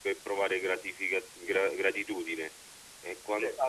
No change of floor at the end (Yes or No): Yes